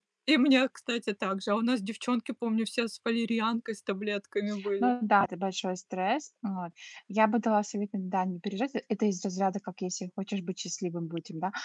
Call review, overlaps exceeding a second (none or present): none